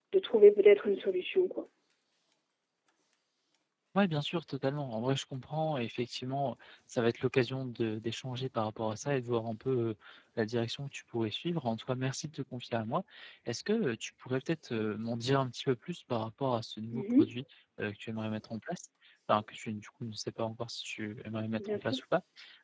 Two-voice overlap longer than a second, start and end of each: none

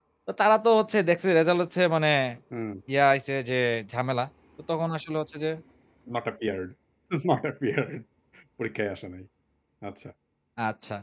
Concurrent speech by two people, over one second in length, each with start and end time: none

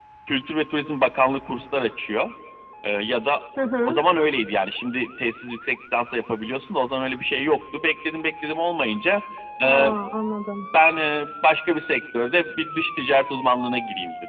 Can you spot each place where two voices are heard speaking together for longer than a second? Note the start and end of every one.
none

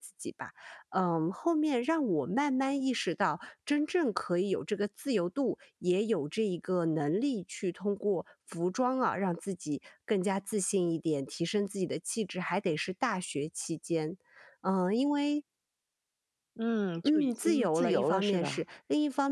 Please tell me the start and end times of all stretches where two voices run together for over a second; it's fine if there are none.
17.1-18.6

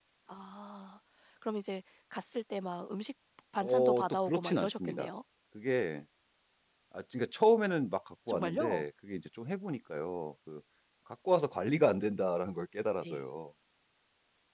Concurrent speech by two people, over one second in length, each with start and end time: 3.6-5.1

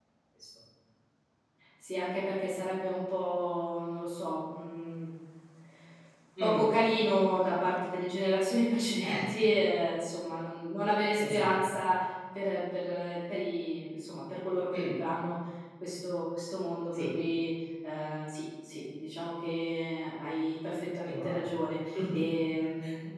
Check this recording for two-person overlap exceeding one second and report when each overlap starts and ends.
none

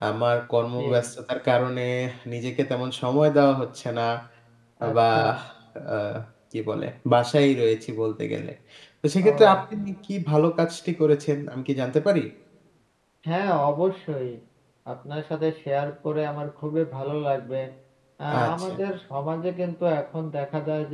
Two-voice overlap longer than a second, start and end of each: none

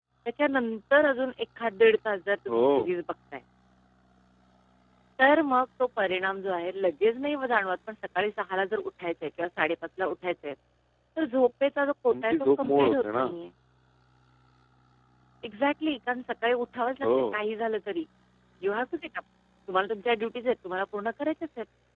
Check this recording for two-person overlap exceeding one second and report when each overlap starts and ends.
12.1-13.3

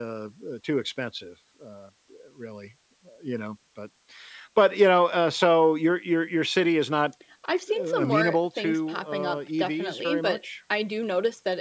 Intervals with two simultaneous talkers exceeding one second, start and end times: 7.8-10.4

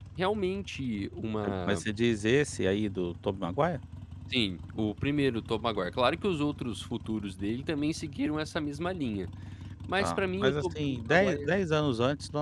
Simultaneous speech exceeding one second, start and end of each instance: 10.0-11.6

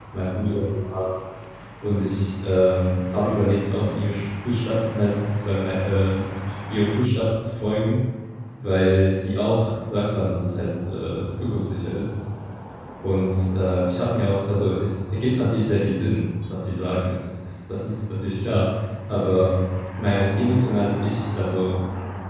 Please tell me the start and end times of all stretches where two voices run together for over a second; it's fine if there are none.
none

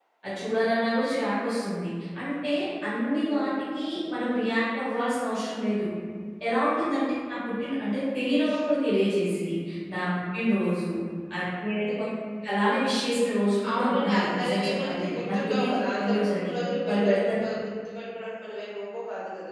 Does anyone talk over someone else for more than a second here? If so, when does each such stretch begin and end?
13.7-16.5

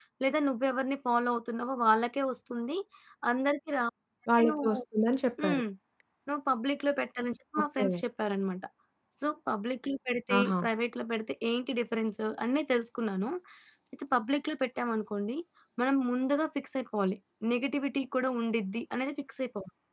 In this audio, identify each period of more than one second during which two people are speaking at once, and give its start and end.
none

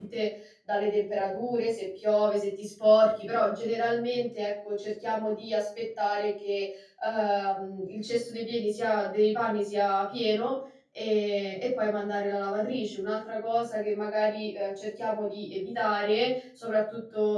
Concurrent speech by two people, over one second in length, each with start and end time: none

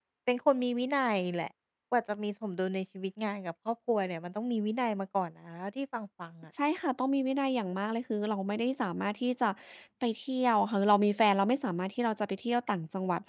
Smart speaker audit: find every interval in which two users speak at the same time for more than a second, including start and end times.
none

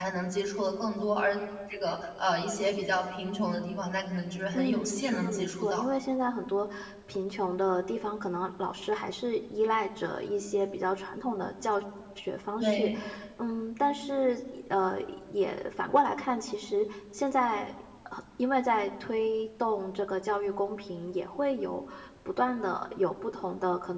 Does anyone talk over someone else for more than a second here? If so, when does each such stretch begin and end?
4.5-5.8

